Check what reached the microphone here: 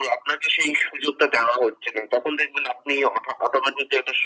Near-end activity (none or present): none